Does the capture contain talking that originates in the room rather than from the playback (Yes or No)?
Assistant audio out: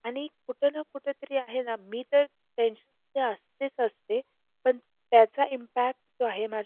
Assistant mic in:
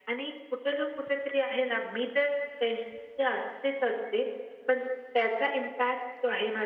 No